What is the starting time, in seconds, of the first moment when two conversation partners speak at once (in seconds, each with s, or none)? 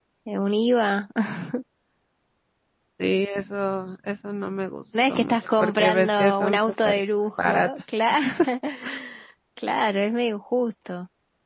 4.9 s